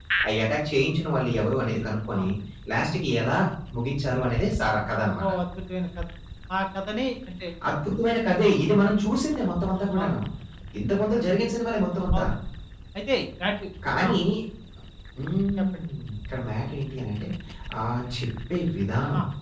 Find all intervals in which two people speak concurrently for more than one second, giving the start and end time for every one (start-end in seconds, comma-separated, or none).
none